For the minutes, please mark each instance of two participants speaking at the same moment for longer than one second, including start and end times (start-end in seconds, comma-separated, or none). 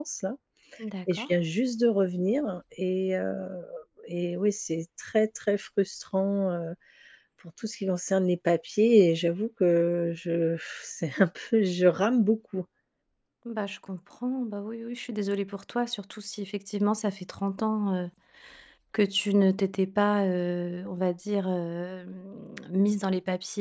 none